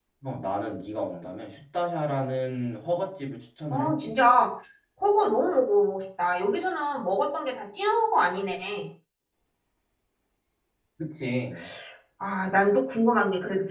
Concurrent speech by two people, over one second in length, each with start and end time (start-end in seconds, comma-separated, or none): none